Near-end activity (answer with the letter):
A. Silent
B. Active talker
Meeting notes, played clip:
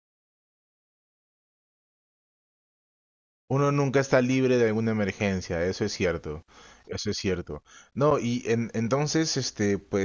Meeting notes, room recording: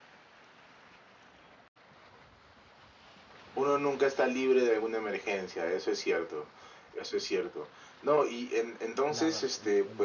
B